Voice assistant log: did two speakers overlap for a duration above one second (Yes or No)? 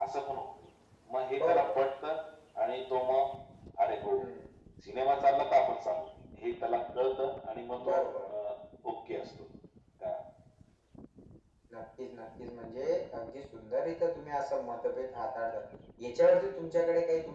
No